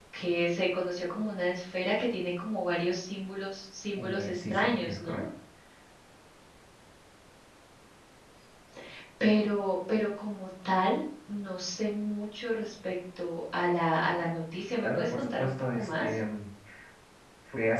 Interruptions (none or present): present